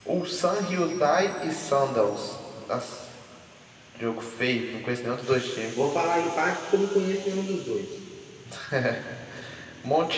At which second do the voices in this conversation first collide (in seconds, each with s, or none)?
none